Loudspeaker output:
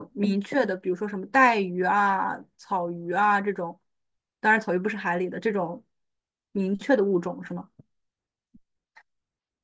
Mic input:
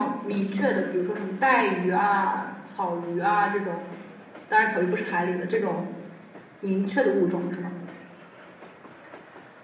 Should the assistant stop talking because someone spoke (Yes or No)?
No